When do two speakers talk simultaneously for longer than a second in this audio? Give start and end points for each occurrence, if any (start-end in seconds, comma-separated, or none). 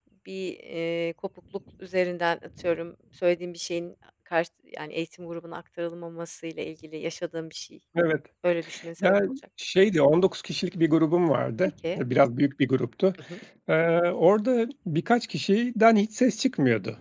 none